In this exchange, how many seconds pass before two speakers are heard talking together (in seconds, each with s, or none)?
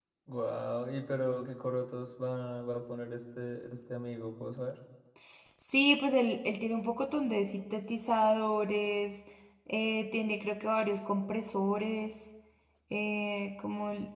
none